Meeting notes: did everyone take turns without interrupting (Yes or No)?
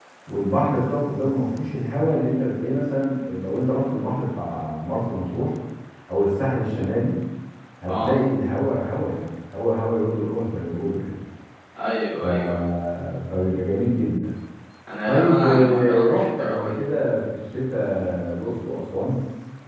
No